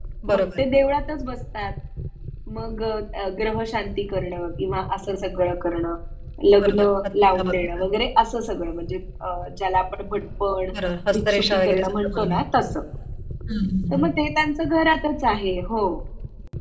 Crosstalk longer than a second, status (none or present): present